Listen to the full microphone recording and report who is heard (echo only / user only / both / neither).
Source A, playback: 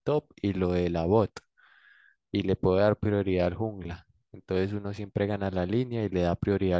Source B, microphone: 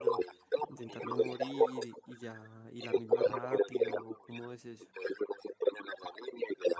both